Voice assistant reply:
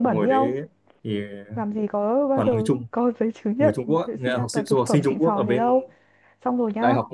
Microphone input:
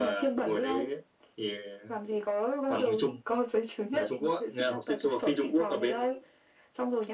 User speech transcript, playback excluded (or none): none